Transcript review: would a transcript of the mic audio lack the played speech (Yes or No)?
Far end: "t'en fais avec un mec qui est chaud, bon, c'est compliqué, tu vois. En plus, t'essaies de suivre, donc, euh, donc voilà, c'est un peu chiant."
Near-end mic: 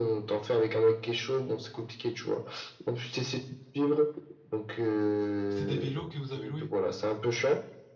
No